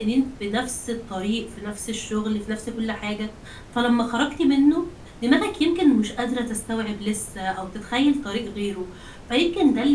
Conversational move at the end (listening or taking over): listening